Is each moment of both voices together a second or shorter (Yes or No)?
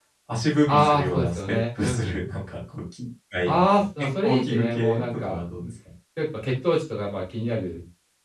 No